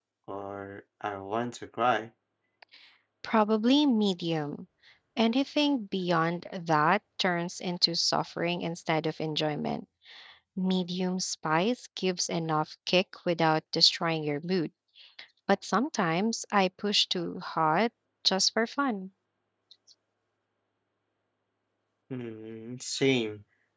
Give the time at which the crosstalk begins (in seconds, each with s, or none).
none